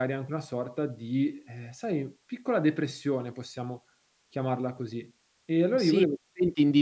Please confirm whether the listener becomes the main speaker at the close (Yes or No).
Yes